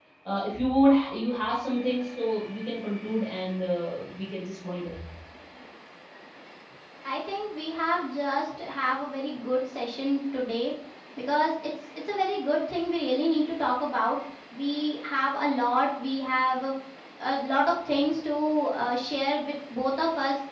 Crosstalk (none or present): none